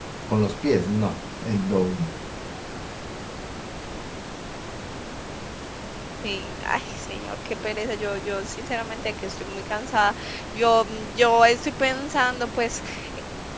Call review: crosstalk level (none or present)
none